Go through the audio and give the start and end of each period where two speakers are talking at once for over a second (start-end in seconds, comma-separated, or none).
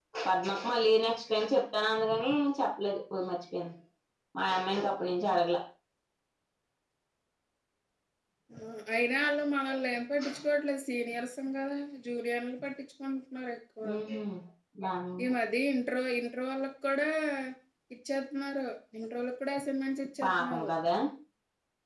none